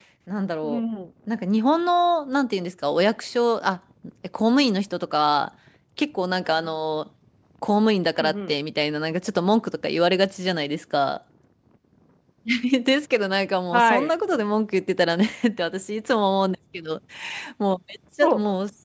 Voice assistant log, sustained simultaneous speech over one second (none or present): none